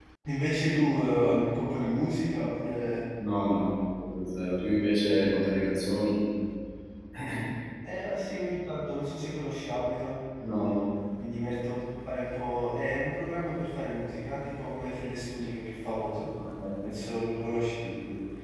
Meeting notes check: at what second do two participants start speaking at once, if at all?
none

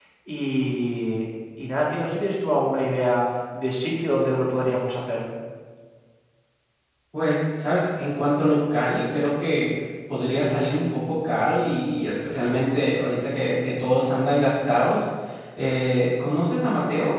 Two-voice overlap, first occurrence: none

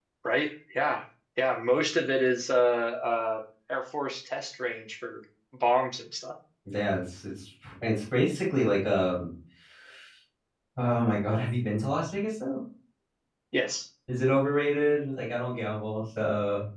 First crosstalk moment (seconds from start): none

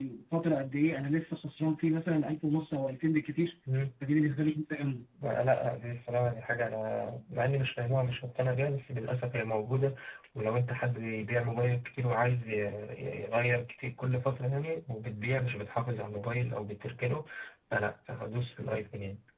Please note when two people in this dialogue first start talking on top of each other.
none

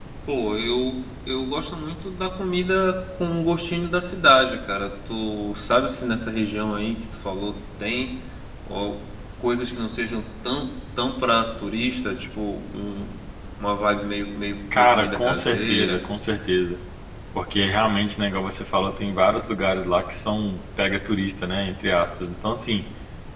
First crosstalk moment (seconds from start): 14.7 s

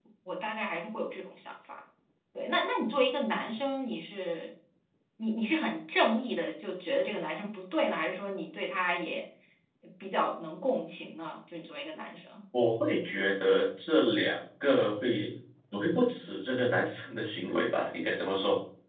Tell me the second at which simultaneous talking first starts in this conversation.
none

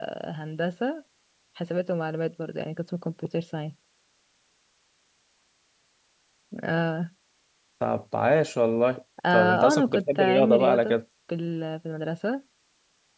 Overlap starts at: 9.2 s

